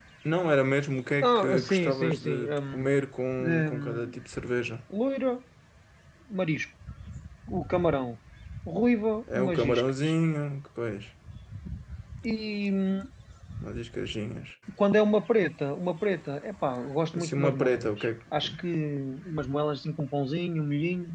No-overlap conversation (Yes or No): No